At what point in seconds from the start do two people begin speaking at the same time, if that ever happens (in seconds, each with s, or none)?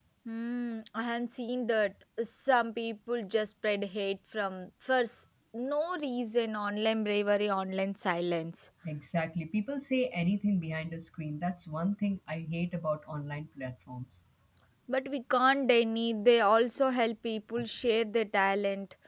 none